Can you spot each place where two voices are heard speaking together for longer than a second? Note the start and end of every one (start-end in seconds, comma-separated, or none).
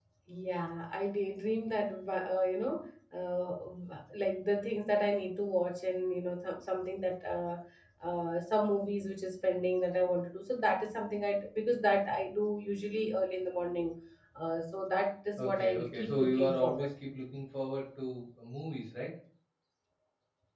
15.4-16.9